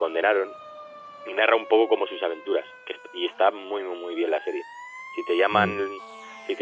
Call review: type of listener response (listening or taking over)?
listening